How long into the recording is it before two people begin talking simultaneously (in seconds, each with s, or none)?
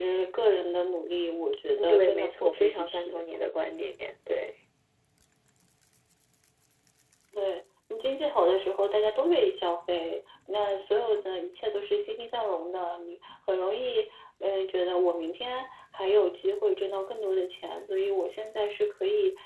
1.8 s